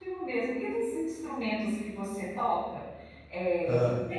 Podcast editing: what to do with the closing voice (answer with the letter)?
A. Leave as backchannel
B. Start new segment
A